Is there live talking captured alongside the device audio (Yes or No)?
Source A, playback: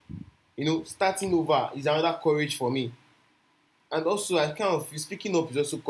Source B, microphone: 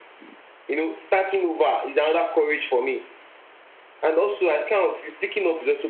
No